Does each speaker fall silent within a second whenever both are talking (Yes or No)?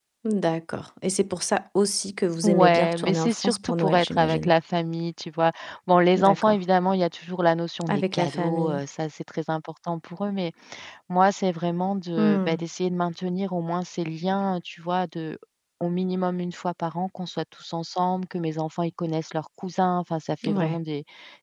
No